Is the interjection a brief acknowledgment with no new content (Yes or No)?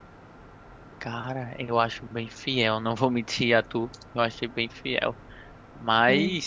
Yes